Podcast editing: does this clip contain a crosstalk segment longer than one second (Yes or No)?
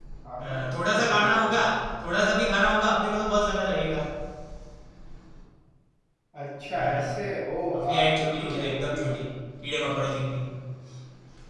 Yes